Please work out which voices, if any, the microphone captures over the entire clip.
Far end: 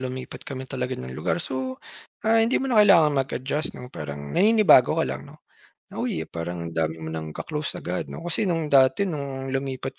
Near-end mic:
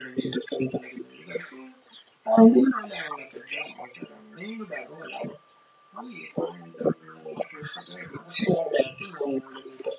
echo only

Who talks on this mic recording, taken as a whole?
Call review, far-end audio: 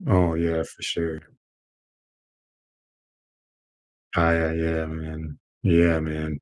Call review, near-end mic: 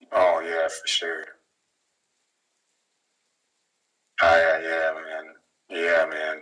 echo only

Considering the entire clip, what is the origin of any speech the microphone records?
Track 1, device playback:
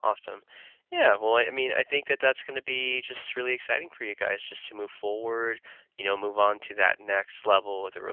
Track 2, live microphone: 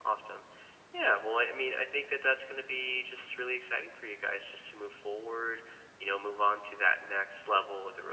echo only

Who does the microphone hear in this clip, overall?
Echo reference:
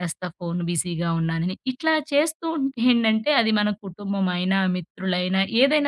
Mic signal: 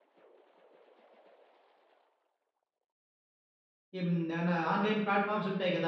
user only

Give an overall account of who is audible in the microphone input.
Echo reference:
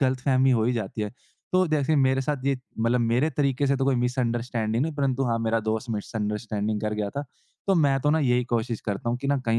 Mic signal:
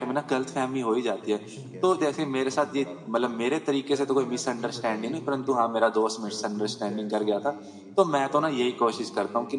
both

